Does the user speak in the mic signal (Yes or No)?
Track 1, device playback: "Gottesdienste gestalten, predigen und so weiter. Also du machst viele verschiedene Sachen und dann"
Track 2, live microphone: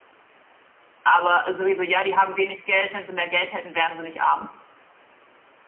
Yes